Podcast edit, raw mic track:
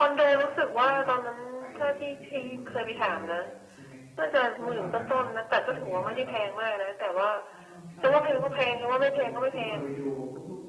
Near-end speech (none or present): present